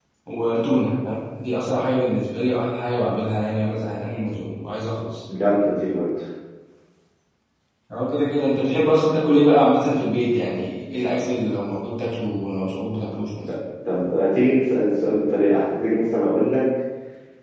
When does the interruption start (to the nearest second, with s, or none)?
none